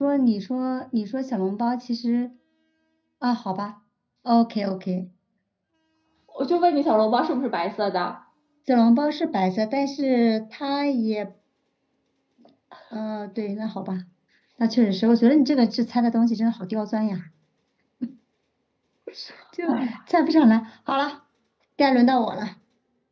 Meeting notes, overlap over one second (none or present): none